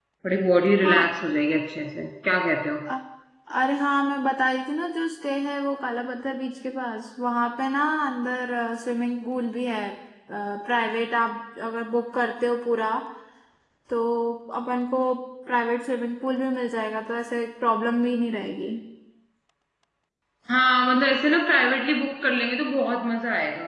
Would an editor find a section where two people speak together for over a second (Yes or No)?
No